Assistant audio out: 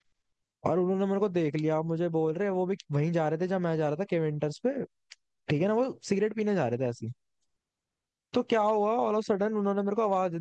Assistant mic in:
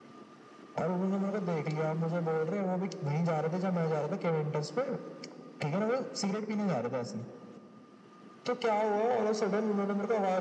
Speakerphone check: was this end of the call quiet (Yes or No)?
Yes